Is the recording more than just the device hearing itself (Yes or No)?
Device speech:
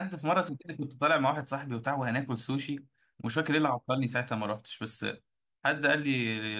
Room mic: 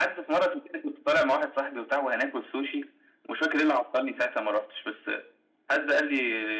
No